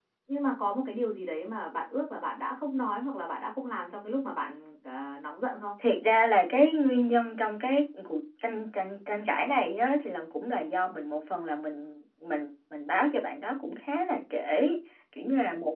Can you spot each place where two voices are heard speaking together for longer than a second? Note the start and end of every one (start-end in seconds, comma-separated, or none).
none